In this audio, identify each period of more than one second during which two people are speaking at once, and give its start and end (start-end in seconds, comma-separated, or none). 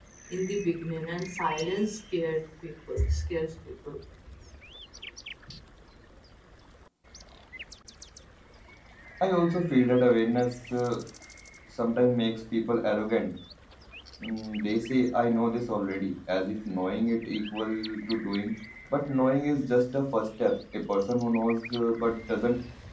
none